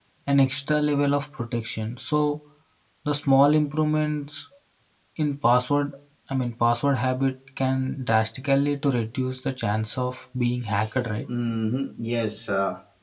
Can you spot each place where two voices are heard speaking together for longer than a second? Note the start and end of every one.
none

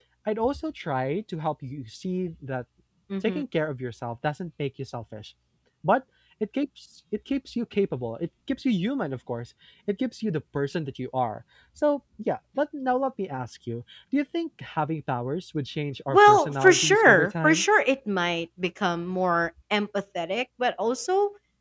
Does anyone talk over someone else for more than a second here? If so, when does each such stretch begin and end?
16.1-17.6

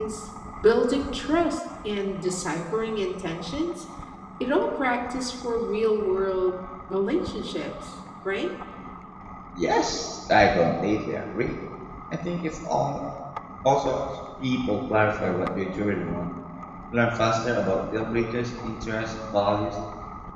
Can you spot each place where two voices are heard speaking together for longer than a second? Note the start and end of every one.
none

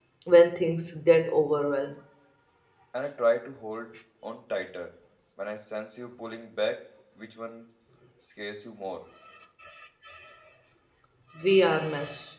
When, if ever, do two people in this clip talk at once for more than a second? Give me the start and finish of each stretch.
none

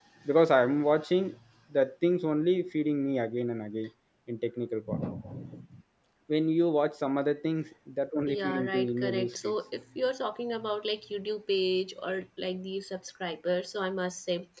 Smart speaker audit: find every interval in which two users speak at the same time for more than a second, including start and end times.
8.3-9.5

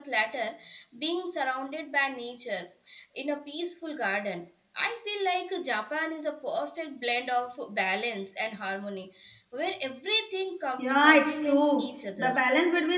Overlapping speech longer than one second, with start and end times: 10.8-12.4

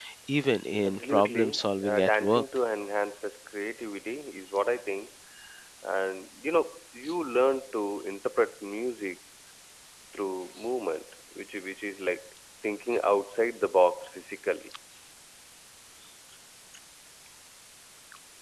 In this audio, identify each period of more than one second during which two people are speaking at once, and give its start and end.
0.9-2.4

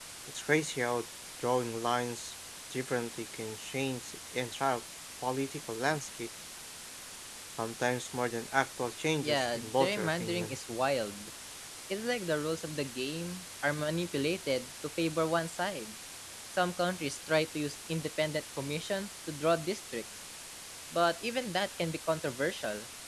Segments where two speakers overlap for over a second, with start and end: 9.2-10.6

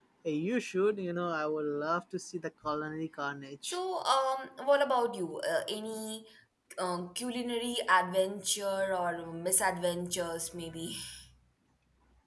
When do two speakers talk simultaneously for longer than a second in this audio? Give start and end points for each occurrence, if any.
none

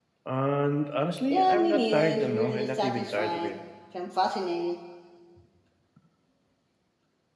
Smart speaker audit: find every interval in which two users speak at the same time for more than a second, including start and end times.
1.3-3.5

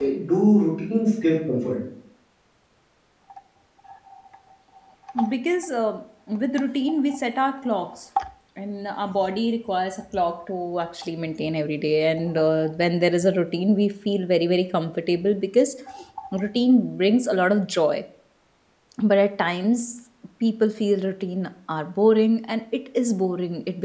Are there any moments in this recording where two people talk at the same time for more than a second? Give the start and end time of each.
none

